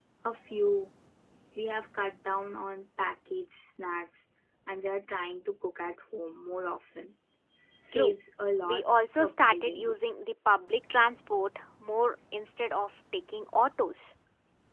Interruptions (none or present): present